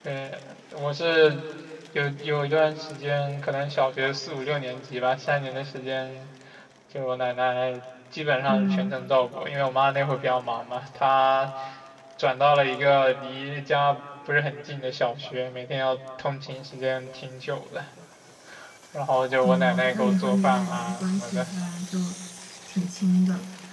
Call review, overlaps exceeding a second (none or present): present